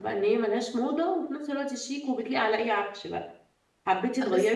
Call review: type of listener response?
listening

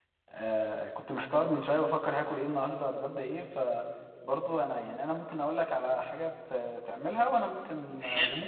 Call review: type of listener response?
taking over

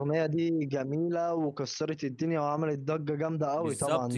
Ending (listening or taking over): taking over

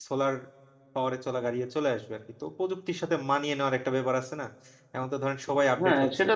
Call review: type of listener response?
taking over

